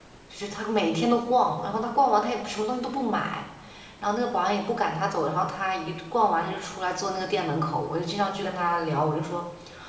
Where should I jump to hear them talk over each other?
none

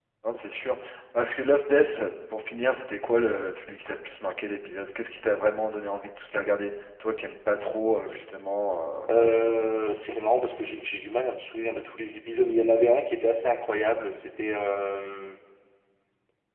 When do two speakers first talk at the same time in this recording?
none

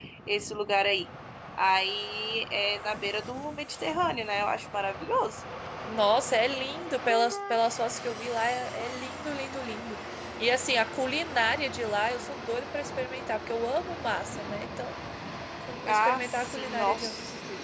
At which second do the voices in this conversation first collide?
16 s

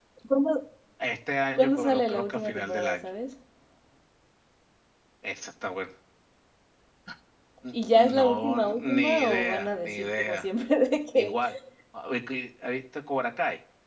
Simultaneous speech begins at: 2 s

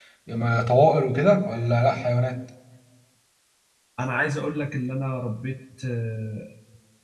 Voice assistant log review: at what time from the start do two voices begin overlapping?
none

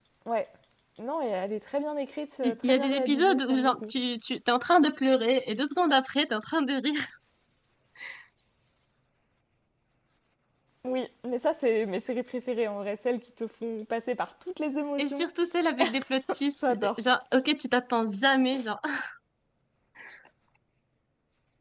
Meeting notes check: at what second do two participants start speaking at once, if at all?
2 s

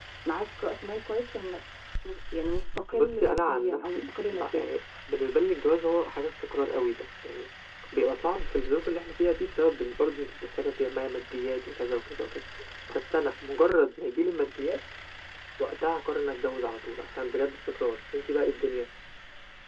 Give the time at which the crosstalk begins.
3 s

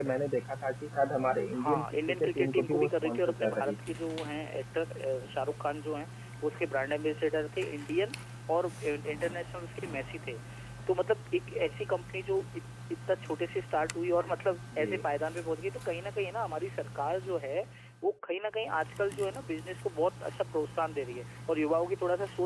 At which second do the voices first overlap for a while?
2 s

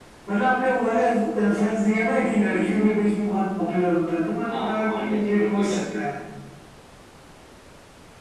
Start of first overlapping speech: 4 s

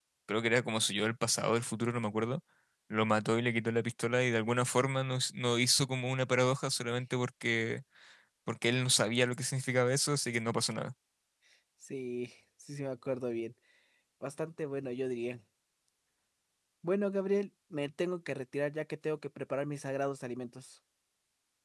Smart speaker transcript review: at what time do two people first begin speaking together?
none

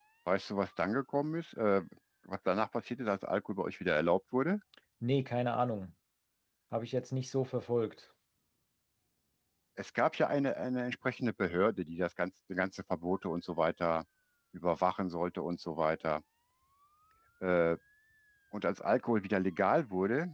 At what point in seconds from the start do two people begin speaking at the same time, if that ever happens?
none

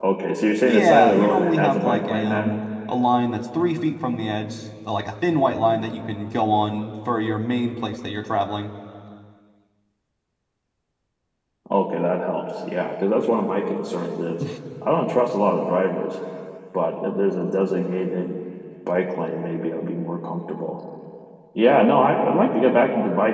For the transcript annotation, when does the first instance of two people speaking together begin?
1 s

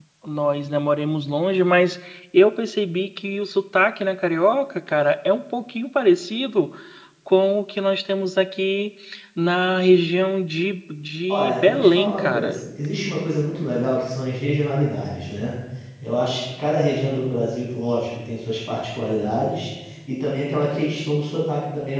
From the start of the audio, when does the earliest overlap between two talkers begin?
11 s

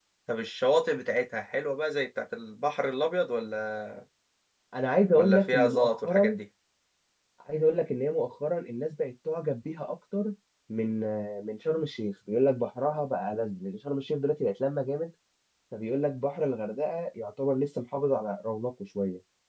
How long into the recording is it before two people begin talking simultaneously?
5 s

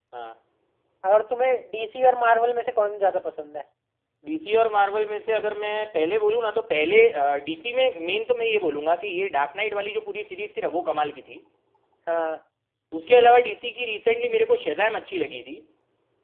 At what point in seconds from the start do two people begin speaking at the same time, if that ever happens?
none

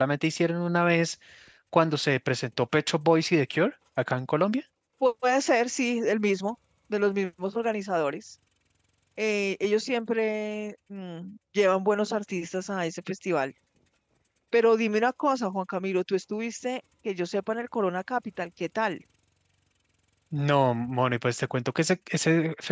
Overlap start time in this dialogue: none

